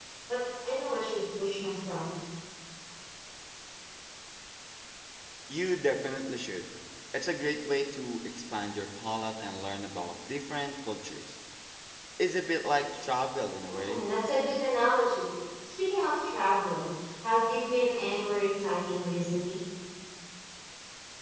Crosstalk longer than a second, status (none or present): none